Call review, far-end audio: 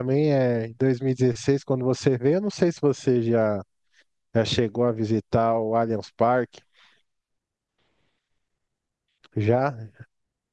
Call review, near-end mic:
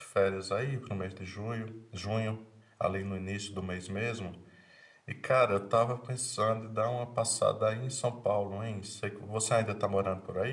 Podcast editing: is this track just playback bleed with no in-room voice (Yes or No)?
No